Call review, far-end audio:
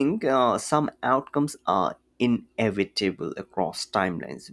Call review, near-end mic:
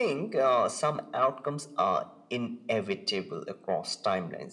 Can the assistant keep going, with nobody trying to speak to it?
Yes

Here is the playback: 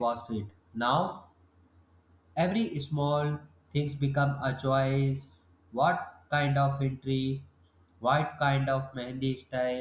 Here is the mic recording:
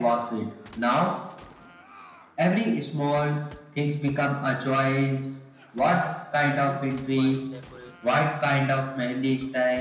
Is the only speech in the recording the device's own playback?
No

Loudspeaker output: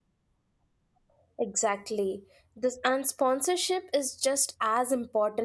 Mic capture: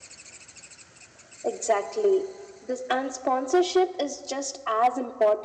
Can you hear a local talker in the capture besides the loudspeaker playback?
No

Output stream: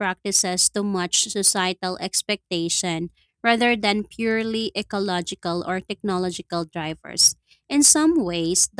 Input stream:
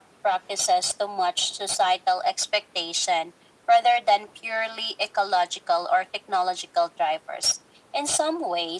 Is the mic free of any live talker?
Yes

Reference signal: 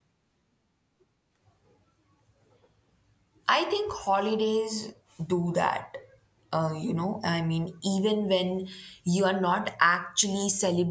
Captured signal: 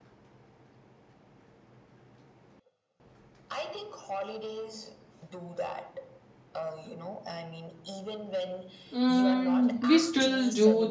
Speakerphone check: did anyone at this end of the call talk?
Yes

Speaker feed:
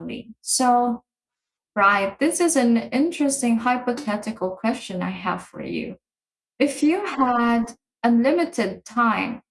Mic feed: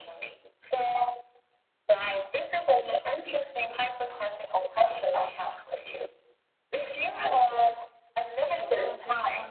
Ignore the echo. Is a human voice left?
Yes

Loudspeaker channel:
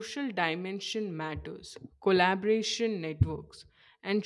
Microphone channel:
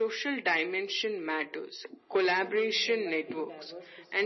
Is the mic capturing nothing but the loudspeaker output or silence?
No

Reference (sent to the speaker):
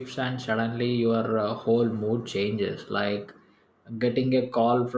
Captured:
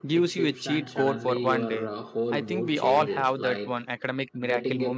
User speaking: Yes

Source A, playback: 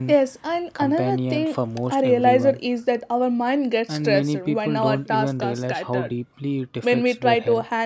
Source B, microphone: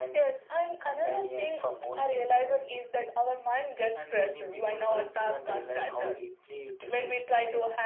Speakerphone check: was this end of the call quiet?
Yes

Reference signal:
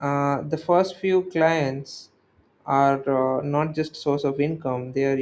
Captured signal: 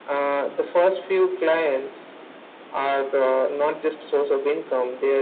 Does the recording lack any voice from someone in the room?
Yes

